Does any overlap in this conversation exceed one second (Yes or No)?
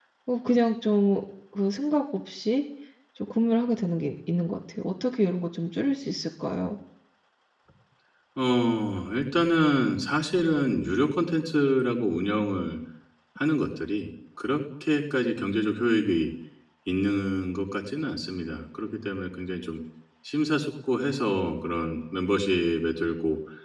No